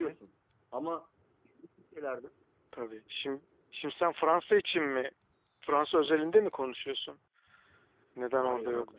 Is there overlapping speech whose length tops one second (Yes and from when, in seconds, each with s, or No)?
No